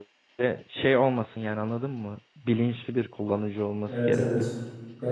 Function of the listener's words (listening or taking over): taking over